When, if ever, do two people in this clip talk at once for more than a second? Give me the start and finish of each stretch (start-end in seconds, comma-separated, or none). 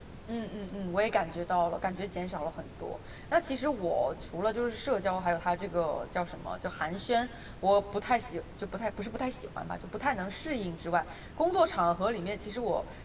none